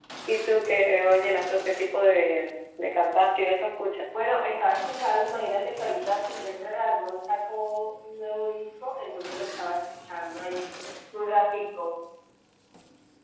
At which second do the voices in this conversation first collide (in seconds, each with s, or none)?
none